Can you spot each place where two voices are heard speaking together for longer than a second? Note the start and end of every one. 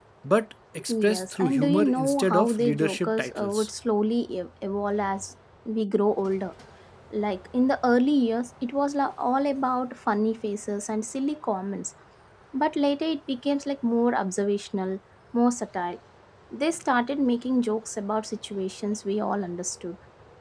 1.1-3.7

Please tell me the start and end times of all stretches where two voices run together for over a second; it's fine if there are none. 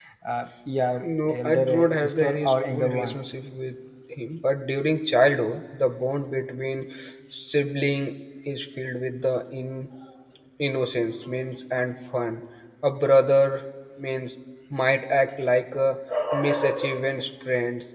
1.0-3.1

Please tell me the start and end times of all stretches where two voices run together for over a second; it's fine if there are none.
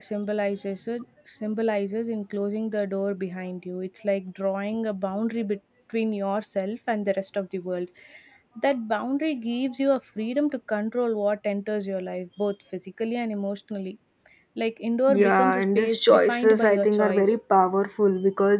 15.1-17.3

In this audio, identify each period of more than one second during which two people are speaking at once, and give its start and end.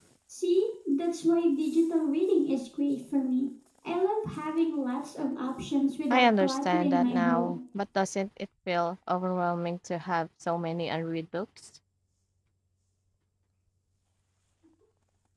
6.1-7.6

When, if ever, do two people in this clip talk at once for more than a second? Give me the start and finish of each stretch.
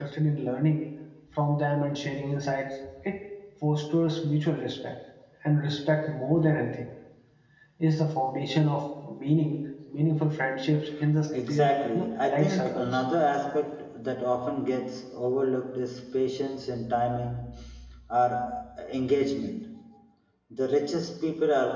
11.5-13.0

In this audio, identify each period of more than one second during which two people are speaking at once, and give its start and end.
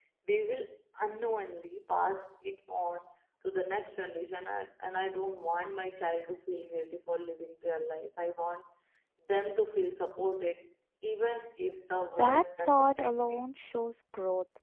12.2-13.4

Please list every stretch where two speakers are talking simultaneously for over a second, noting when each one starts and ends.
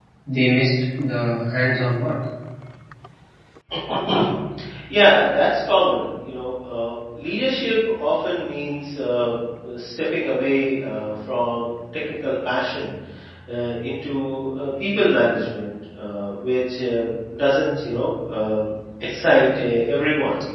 none

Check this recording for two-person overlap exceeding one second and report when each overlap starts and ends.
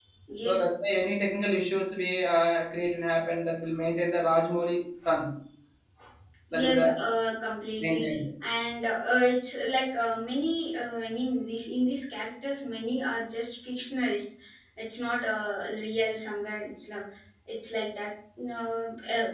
none

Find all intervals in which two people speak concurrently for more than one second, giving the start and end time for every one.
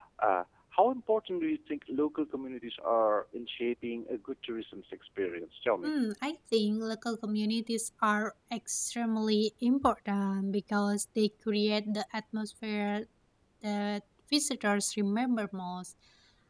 none

